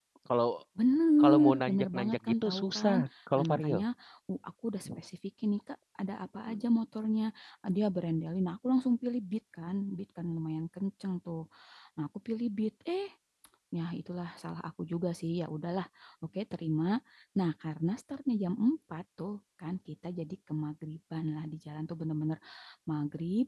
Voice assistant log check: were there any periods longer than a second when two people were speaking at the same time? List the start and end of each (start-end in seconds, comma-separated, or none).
1.2-3.0